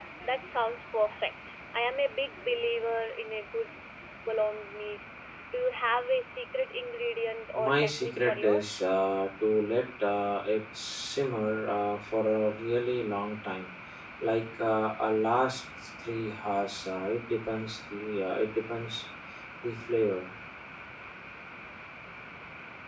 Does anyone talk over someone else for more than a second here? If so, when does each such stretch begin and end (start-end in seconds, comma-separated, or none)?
7.6-8.8